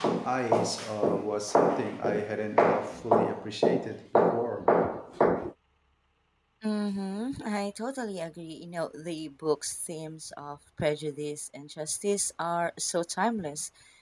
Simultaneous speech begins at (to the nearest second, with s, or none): none